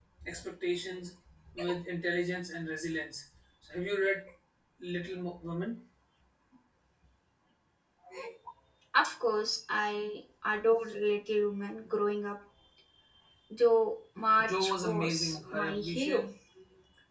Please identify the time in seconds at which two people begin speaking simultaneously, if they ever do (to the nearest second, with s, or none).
14 s